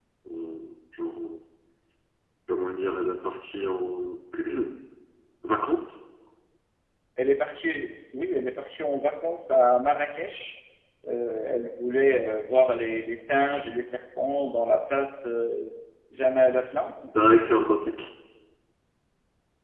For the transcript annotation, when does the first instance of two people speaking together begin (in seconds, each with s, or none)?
none